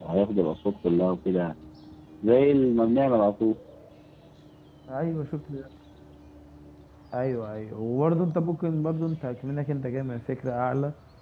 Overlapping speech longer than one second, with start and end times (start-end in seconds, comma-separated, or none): none